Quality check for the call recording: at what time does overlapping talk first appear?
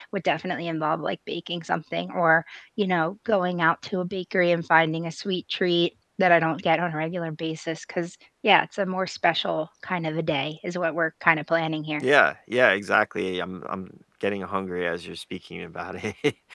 none

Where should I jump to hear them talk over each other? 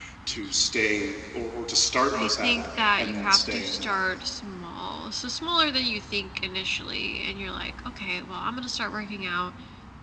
2.1 s

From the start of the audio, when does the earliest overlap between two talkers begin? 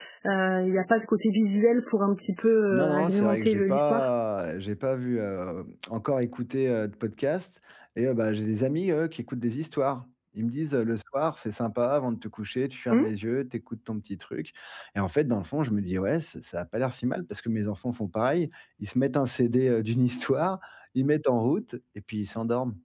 2.7 s

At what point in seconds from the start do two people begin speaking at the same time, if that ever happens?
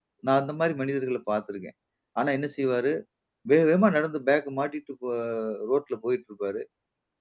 none

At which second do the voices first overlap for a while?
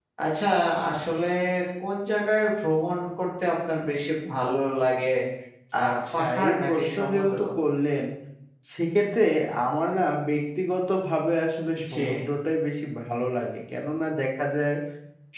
5.9 s

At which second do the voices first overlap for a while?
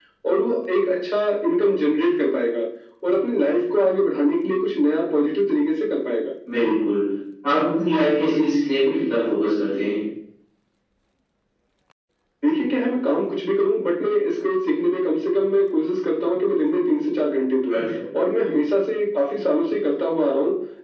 none

